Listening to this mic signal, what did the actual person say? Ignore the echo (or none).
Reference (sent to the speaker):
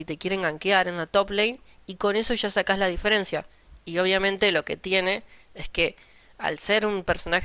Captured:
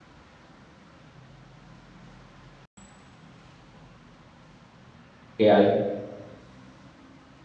que hay.